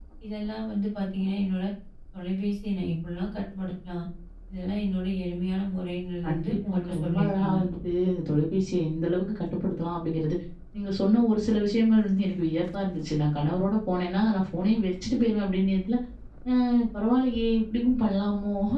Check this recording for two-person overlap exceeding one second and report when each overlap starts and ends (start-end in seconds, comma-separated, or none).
6.2-7.6